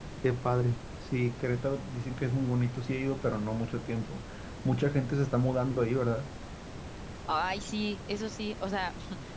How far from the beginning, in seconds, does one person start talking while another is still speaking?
none

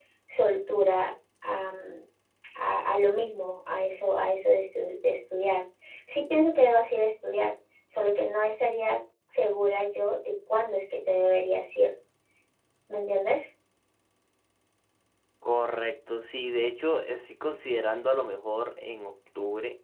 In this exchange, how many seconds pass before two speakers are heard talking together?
none

